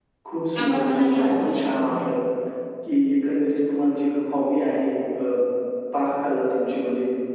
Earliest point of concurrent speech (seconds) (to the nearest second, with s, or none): 1 s